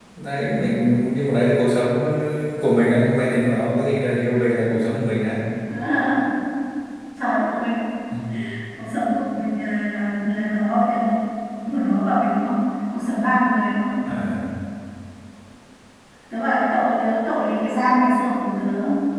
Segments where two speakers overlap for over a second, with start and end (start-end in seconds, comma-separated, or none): none